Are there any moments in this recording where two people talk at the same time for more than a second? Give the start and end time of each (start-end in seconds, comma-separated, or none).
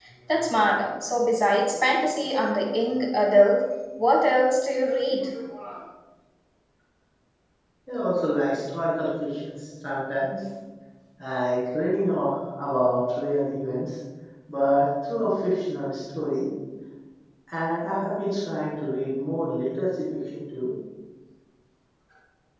none